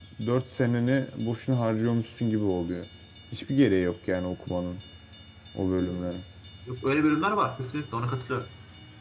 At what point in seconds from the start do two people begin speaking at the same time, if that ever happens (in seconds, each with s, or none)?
none